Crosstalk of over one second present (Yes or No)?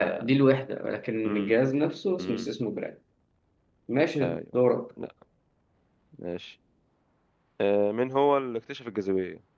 No